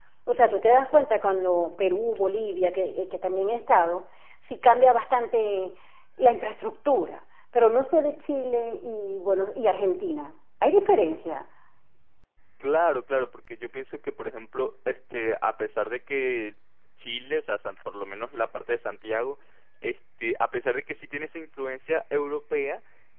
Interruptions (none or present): none